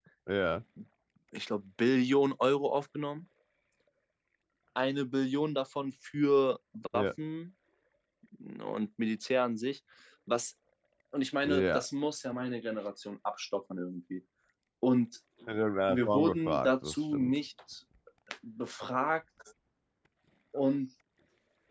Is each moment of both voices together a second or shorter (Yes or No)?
No